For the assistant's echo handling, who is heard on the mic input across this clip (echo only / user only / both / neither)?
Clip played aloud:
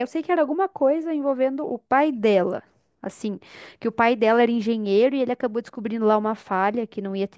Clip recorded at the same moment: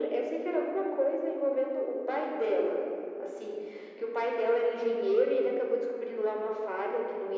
echo only